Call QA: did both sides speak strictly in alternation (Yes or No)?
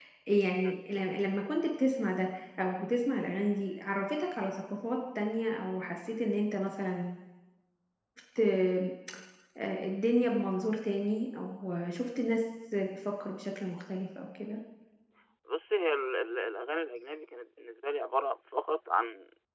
Yes